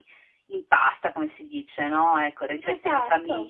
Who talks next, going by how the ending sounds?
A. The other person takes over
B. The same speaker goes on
B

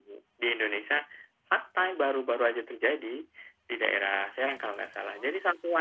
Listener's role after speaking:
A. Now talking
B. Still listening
B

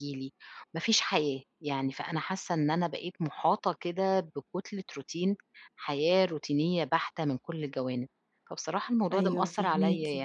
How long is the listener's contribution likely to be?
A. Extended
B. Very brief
B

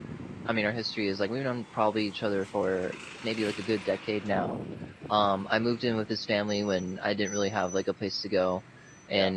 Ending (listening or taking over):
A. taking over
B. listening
B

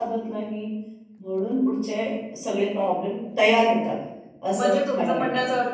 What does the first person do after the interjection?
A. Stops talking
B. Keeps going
A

